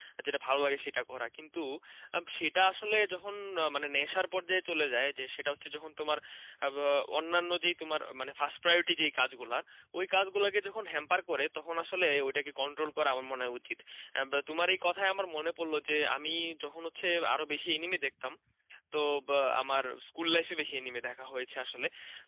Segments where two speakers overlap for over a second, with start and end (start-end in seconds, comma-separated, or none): none